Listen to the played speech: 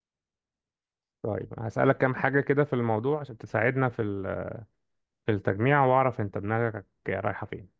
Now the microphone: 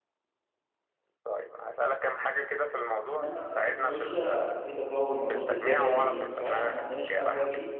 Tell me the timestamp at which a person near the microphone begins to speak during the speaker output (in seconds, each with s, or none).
3.2 s